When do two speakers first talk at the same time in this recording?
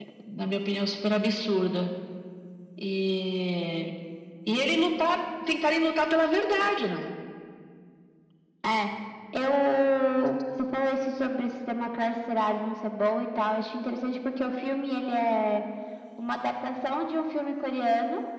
none

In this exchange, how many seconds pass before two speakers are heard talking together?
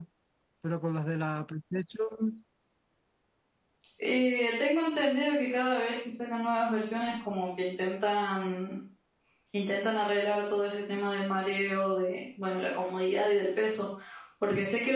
none

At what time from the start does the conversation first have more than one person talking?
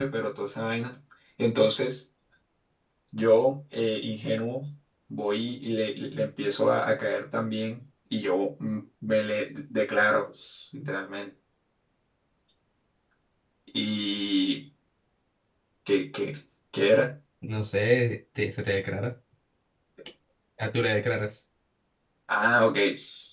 none

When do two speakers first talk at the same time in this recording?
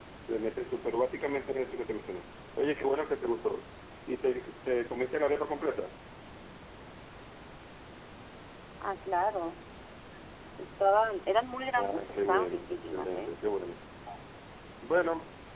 12 s

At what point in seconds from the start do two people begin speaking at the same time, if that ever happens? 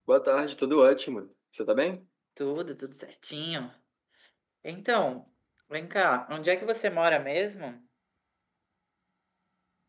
none

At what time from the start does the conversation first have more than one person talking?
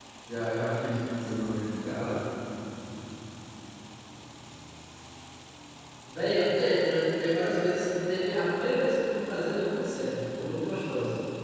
none

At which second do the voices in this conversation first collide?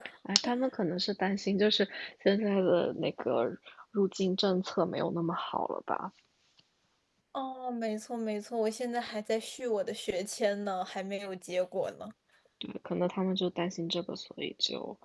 none

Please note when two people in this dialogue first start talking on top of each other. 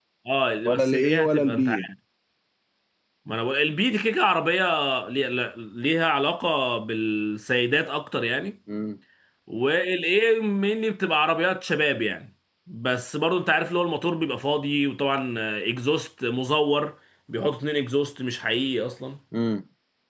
1 s

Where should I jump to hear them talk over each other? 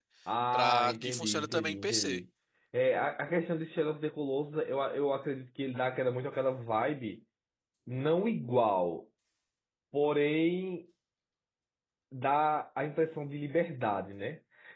1 s

